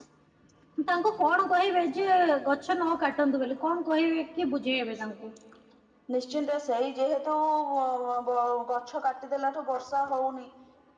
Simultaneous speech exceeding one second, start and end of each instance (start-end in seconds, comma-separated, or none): none